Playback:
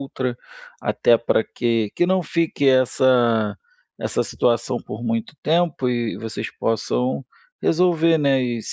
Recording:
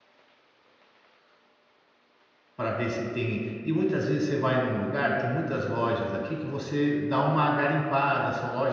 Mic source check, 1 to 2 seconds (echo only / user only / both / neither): neither